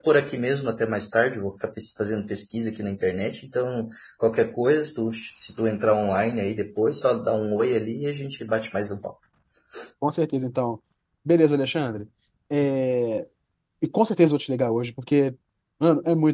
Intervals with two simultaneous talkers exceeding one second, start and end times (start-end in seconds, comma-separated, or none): none